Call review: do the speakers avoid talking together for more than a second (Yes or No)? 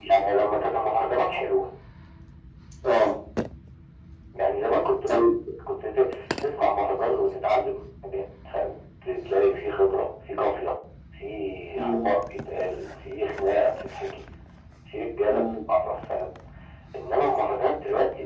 Yes